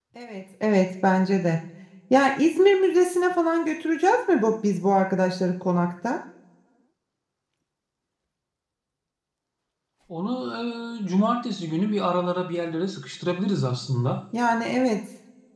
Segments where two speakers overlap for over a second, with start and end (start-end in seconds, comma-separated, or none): none